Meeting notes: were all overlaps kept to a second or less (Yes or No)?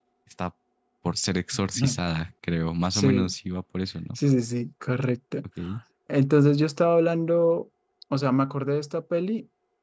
Yes